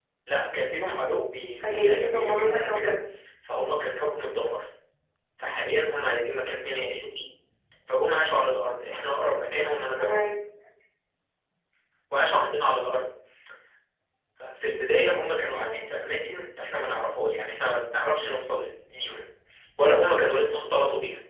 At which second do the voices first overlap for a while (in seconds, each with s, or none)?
1.6 s